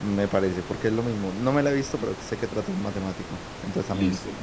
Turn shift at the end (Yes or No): Yes